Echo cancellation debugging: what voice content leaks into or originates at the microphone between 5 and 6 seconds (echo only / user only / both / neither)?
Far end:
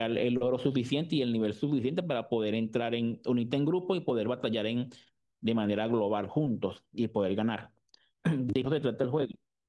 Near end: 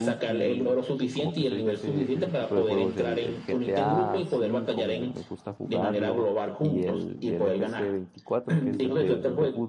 both